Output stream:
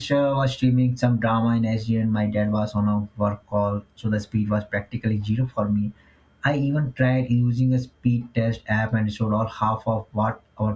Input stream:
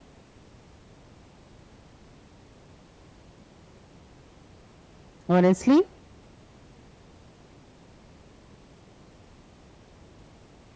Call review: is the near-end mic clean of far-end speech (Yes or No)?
Yes